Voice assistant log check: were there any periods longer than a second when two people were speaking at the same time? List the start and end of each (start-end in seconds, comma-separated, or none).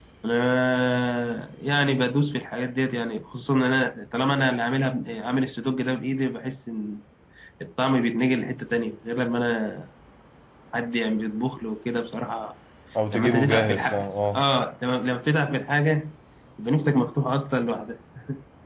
13.1-14.4